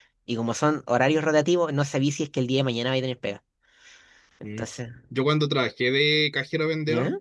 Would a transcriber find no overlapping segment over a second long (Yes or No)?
Yes